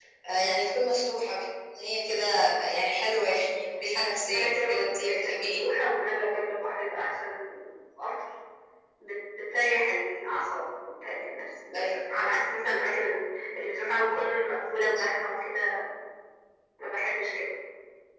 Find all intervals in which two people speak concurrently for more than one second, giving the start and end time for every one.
4.3-5.7

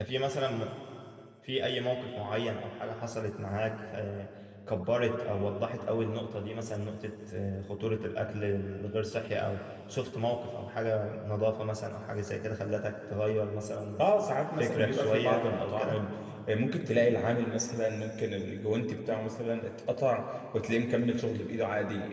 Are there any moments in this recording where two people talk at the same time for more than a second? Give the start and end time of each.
14.6-15.9

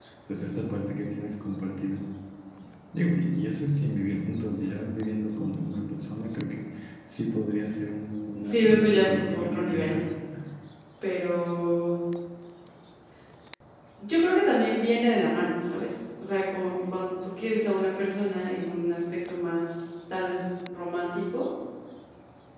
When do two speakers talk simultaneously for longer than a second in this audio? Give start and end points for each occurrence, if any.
8.4-10.0

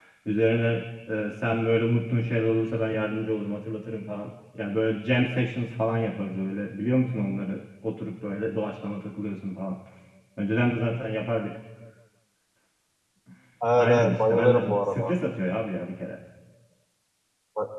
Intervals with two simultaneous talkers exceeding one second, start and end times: 13.8-15.1

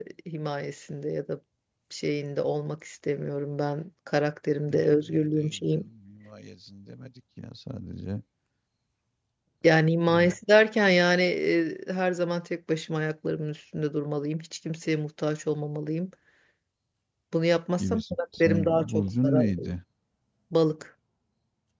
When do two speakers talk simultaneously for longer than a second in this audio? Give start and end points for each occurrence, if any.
4.7-5.9, 17.8-19.7

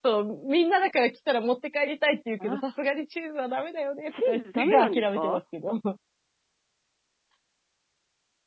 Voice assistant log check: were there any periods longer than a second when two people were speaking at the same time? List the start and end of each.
4.1-5.4

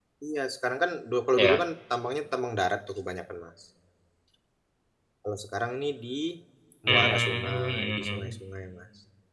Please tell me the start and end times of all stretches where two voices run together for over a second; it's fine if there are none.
6.9-8.3

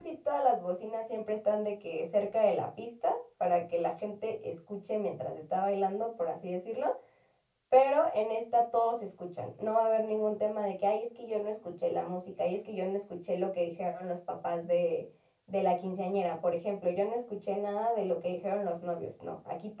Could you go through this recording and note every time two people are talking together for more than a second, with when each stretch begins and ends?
none

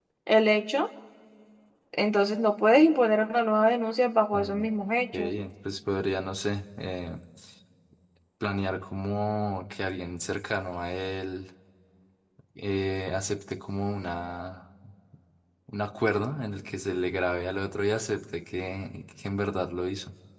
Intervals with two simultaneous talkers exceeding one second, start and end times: none

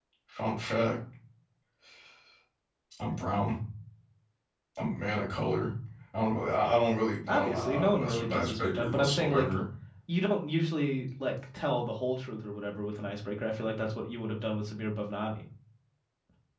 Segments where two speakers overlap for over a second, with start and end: 7.3-9.5

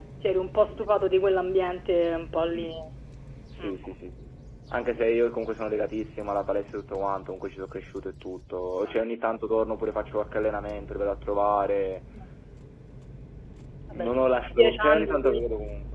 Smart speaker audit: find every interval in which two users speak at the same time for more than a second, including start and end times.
13.9-15.4

